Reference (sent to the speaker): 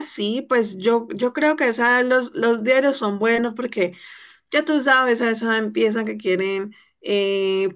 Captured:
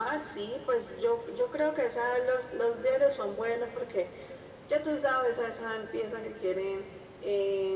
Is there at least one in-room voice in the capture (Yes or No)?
No